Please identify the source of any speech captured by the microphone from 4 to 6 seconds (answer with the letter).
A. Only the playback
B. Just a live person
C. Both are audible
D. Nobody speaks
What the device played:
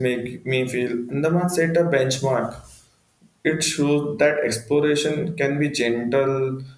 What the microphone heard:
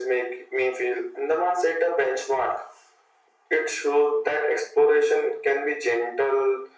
A